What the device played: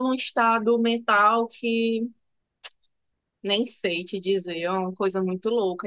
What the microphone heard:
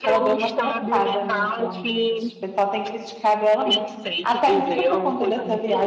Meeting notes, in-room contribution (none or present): present